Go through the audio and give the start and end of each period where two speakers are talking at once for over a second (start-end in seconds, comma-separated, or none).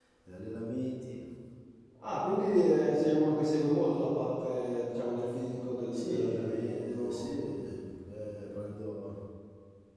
5.9-7.3